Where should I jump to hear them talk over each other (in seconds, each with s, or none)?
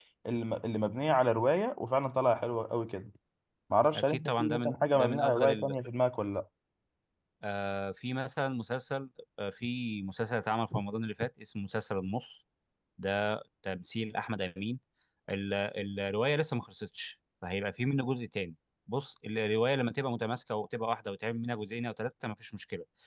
3.9 s